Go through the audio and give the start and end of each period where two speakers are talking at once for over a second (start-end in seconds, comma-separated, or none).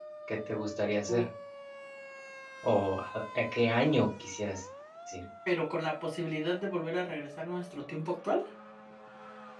none